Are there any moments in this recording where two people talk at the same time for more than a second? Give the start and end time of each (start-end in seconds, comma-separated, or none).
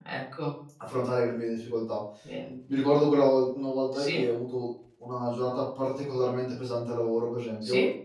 none